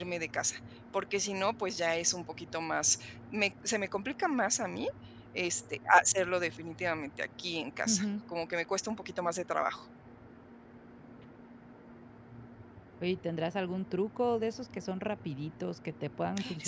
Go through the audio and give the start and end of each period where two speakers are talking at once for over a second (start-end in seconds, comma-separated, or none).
none